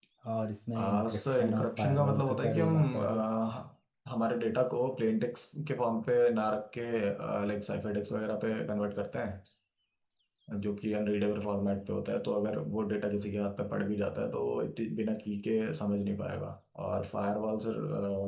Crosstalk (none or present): present